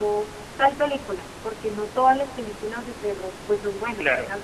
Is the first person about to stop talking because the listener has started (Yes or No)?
Yes